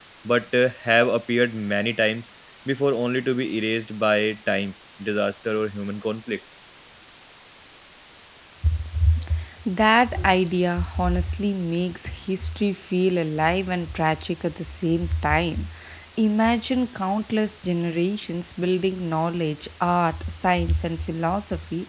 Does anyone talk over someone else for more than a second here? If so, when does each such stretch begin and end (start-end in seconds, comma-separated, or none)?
none